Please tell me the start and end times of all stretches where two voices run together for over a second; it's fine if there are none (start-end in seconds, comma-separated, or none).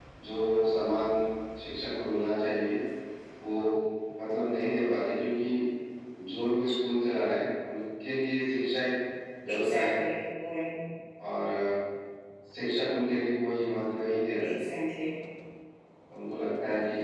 none